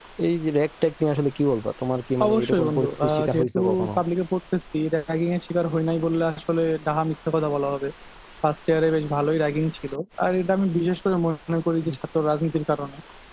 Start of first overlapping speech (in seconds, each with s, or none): 2.2 s